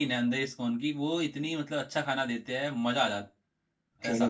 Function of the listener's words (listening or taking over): taking over